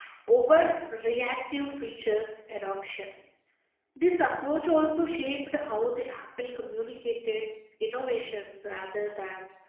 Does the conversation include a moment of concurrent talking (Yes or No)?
No